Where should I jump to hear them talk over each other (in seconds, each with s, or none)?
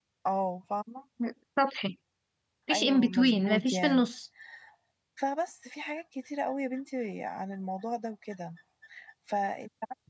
2.7 s